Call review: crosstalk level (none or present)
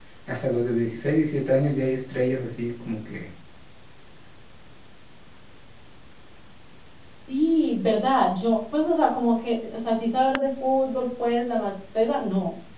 none